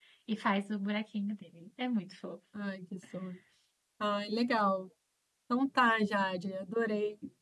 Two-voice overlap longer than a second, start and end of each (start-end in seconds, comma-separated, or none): none